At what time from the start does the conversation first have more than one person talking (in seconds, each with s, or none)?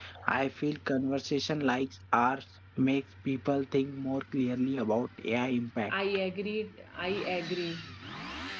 none